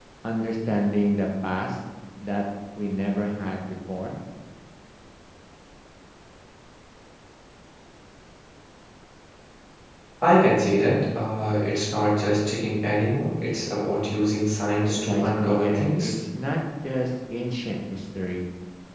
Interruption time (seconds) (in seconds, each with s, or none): 14.9 s